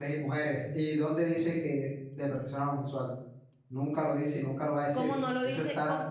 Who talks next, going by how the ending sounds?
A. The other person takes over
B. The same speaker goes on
A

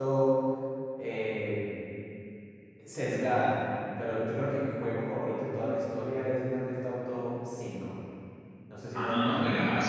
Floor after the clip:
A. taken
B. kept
A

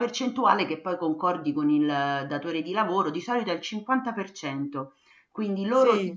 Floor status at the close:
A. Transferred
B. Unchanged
B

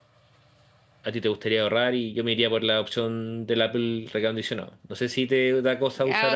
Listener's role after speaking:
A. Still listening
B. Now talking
B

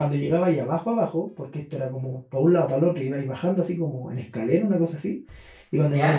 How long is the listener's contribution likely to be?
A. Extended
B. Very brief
B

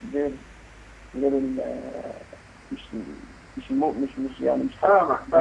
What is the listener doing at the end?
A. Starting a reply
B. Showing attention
A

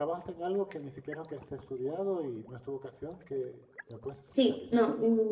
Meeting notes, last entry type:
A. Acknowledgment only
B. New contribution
B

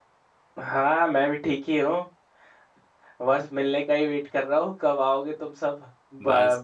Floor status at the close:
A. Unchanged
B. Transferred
B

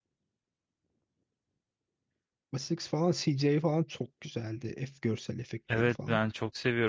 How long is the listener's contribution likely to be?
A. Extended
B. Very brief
A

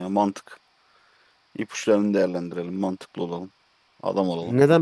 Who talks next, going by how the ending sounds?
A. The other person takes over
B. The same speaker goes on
A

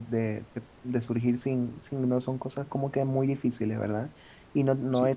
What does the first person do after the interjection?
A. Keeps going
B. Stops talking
A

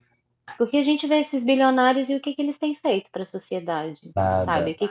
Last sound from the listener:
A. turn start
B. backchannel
B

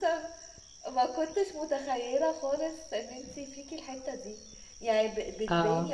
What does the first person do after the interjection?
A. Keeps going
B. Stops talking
A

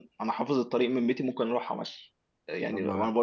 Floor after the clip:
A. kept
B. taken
A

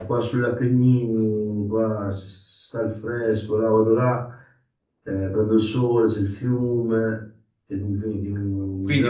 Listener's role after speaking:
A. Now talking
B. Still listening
A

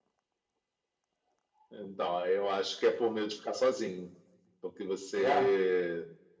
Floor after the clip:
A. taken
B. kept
B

